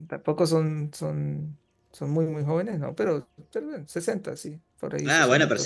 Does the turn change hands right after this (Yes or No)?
Yes